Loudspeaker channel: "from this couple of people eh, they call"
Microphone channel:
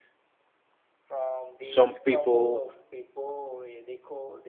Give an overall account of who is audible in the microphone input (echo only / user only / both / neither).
both